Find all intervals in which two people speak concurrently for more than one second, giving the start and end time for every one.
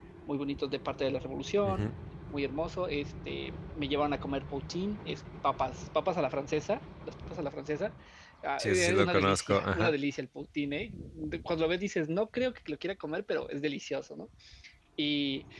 8.6-9.9

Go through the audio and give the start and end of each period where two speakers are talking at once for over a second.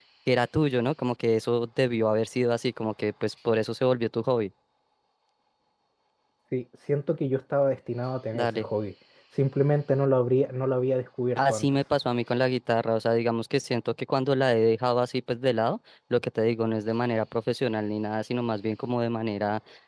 none

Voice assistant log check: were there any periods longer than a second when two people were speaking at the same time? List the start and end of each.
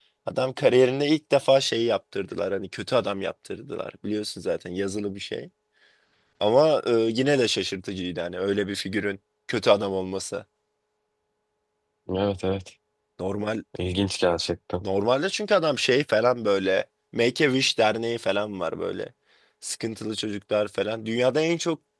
none

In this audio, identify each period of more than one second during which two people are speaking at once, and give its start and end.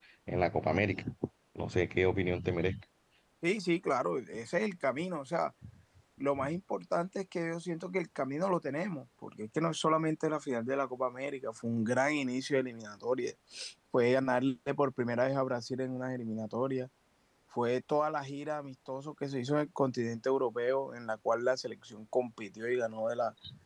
none

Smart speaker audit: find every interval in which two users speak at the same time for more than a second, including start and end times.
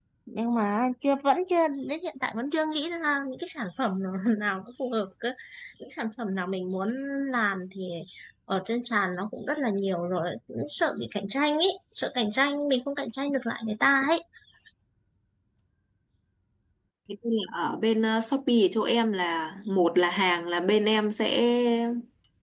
none

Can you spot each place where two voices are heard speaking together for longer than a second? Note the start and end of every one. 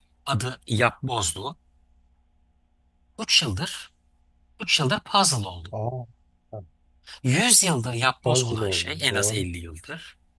8.2-9.5

